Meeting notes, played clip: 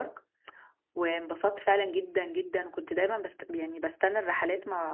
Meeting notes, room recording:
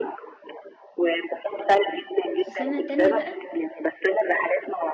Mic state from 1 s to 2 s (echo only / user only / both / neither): echo only